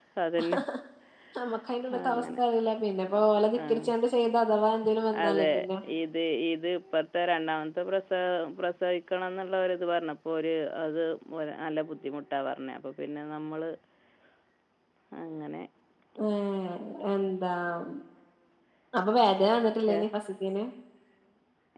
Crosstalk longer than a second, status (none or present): none